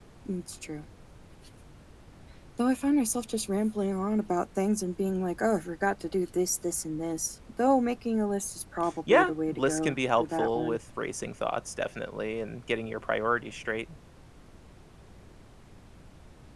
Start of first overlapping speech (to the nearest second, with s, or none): 9 s